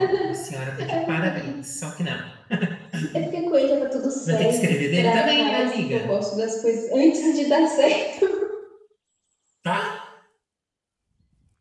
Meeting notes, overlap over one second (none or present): present